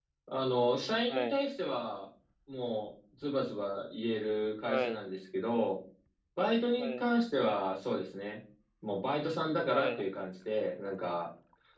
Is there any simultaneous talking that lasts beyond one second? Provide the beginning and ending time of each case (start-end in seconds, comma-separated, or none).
none